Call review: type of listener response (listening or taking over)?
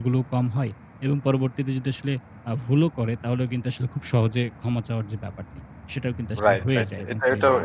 taking over